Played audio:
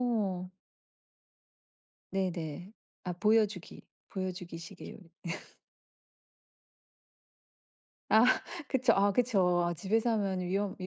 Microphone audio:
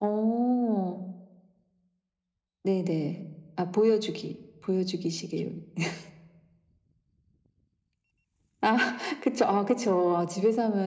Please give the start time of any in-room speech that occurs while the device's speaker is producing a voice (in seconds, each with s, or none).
none